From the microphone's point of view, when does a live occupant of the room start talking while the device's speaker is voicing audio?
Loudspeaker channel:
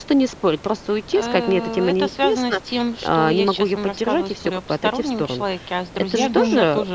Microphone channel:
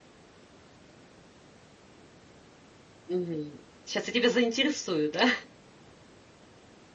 3.1 s

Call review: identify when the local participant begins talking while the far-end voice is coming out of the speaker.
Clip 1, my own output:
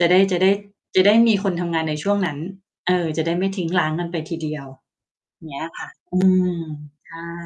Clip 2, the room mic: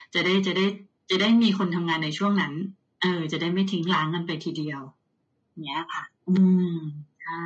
none

